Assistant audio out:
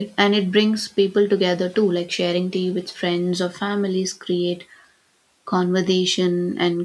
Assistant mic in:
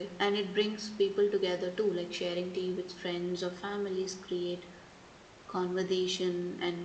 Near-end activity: none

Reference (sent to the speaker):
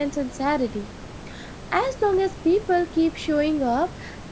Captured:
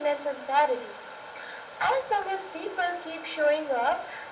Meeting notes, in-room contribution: none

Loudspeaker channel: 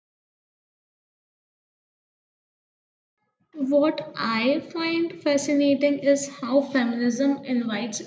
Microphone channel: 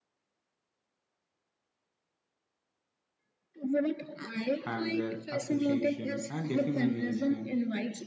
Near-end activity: present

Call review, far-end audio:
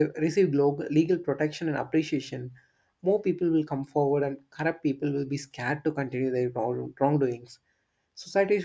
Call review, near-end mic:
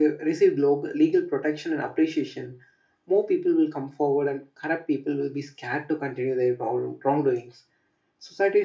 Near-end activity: none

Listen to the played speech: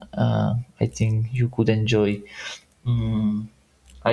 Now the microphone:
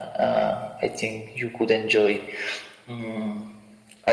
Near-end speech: none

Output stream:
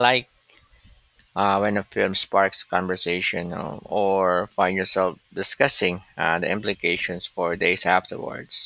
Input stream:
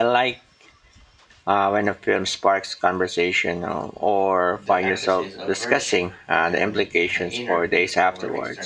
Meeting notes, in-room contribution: present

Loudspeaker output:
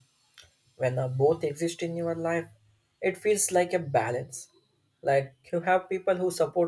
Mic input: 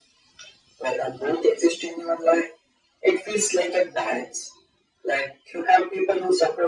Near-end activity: none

